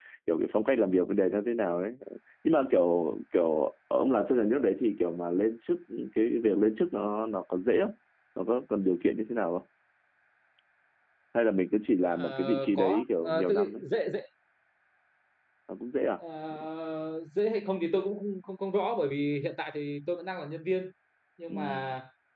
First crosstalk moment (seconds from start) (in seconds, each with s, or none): 12.1 s